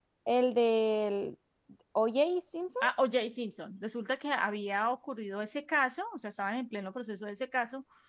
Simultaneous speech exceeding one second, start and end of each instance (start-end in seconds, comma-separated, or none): none